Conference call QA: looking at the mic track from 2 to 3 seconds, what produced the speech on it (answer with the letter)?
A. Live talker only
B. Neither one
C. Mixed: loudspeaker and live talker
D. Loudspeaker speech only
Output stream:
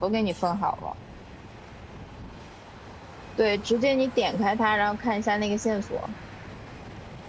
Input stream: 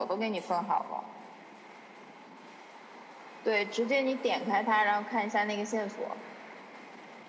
B